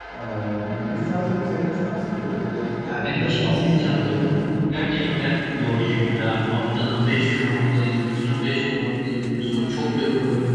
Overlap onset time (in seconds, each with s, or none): 2.8 s